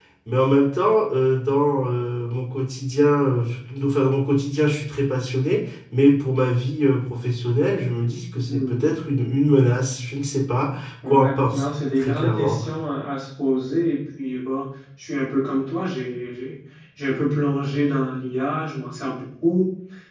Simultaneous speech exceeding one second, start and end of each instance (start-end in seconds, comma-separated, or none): 11.1-12.6